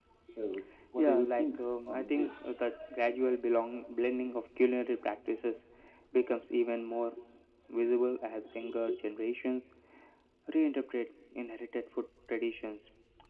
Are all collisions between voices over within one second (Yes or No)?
No